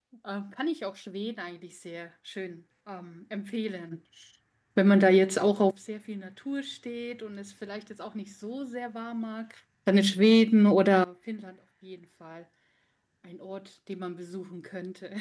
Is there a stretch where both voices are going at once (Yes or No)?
No